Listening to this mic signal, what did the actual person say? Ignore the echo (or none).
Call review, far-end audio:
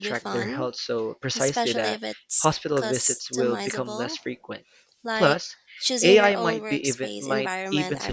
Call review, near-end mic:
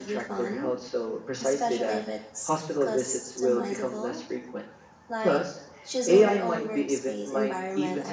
none